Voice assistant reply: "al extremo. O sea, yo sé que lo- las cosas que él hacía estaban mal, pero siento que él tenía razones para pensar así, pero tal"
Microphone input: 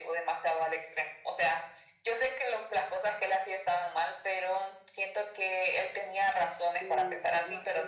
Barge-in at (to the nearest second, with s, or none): 7 s